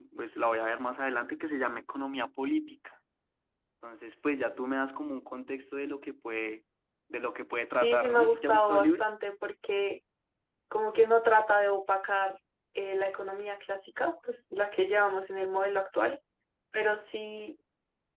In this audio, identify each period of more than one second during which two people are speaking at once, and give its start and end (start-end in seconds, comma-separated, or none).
7.8-9.0